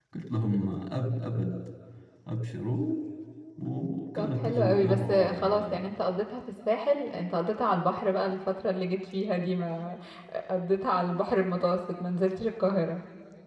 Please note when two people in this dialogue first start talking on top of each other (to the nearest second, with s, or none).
4 s